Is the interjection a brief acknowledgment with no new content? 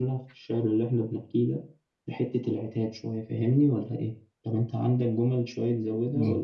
No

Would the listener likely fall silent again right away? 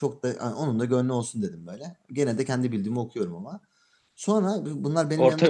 Yes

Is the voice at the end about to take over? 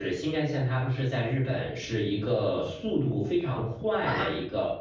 No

